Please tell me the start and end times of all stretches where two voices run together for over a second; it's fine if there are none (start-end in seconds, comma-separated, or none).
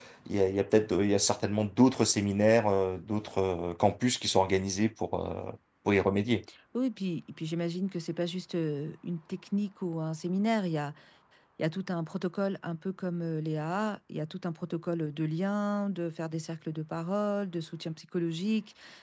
none